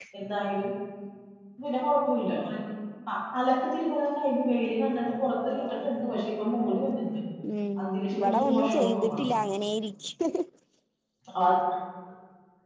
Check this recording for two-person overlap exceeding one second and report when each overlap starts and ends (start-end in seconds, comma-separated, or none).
7.8-9.3